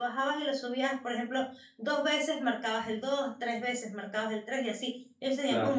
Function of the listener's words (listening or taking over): listening